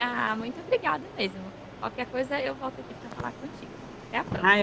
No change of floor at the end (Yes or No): No